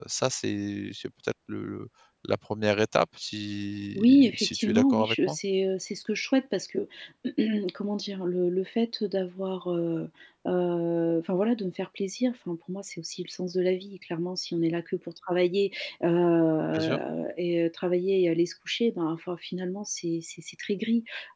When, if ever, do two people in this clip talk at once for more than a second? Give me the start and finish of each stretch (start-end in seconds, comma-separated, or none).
4.0-5.4